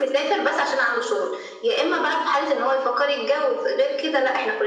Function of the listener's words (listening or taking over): listening